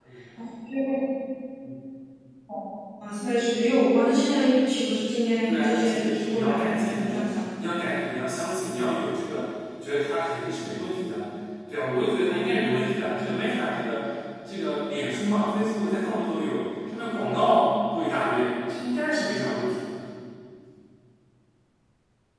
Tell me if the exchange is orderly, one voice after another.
No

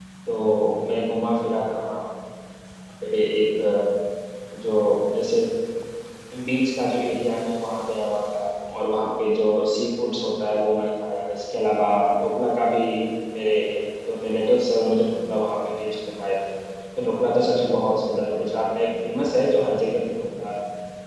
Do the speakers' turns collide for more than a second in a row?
No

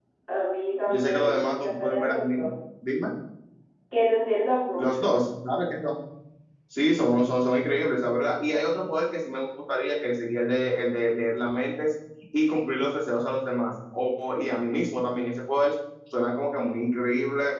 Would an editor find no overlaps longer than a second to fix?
No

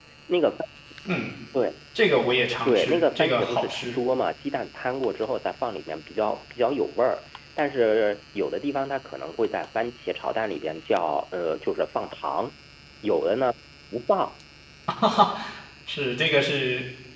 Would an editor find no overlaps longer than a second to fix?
No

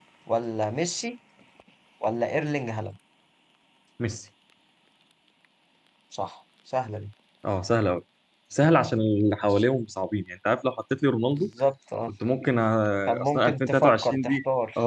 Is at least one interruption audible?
Yes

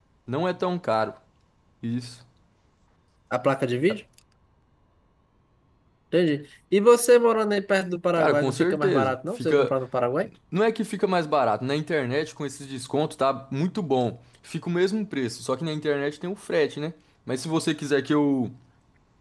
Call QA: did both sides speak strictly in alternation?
No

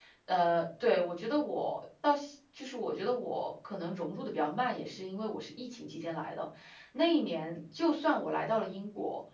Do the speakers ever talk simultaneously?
No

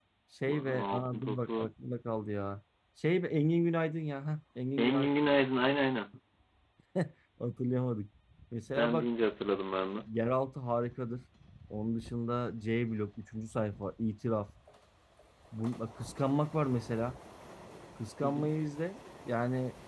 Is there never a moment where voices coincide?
No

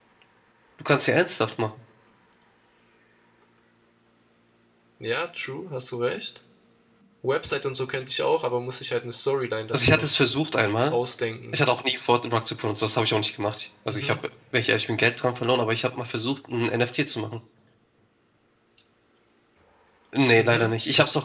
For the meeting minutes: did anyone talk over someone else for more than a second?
No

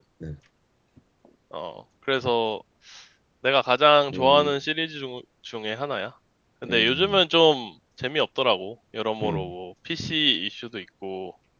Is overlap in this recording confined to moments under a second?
Yes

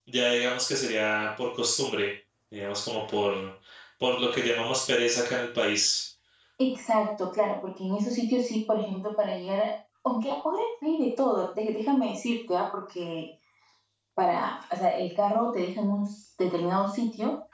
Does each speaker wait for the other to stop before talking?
Yes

